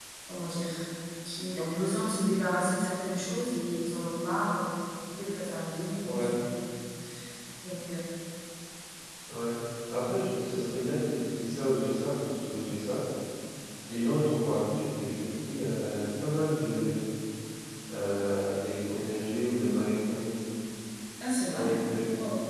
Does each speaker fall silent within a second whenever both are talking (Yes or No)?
Yes